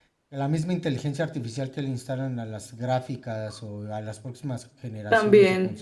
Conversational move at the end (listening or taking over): listening